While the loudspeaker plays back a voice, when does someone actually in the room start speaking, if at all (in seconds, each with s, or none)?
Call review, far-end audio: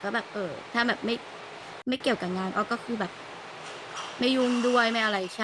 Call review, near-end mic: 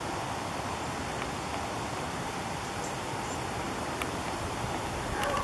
none